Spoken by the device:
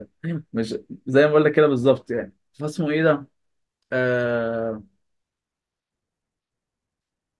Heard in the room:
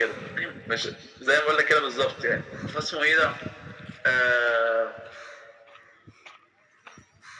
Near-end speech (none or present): none